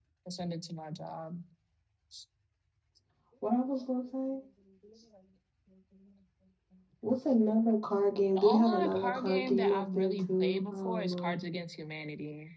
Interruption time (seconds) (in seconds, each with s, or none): 8.3 s